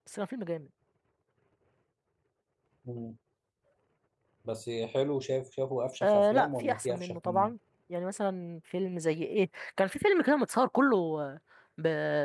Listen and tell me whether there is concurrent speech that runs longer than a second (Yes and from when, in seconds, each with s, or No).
Yes, from 6.0 s